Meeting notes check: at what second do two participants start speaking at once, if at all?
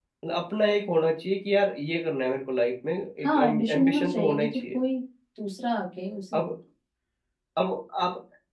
3 s

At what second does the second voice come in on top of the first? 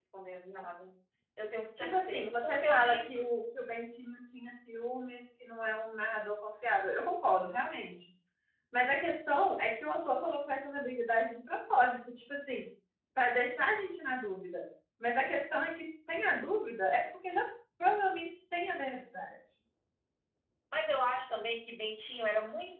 2 s

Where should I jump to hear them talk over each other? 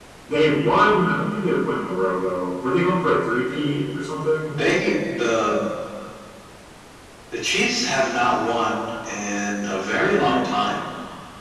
none

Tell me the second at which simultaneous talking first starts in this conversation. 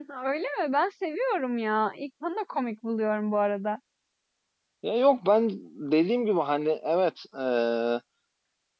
none

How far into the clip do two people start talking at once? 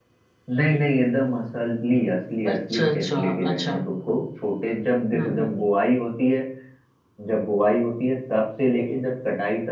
2 s

